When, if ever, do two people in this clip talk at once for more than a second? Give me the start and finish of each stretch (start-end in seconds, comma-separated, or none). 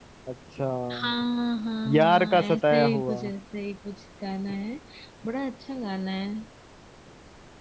1.9-3.2